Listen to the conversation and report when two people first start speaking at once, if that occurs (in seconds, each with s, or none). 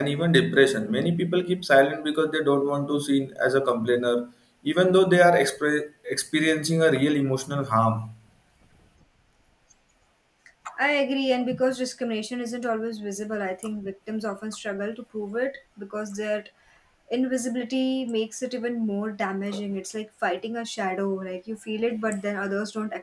none